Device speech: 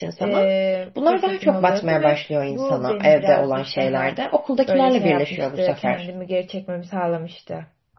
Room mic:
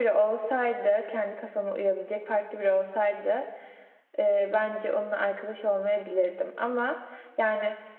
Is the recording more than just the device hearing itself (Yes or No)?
Yes